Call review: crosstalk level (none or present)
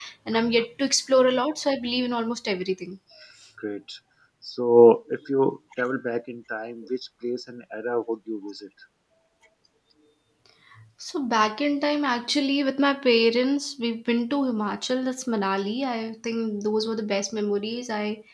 none